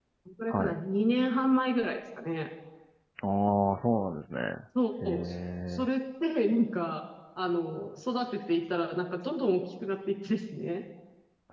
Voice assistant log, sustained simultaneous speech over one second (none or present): none